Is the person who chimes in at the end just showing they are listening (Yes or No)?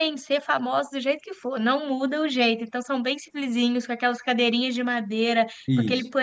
Yes